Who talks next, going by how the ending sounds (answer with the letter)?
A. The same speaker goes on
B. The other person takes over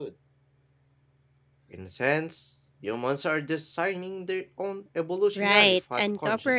B